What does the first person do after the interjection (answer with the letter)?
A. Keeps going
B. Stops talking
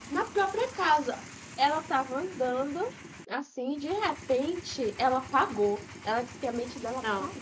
A